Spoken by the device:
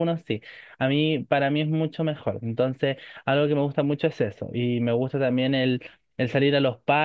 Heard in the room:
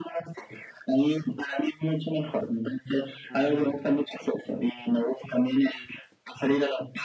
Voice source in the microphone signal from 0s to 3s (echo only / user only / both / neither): echo only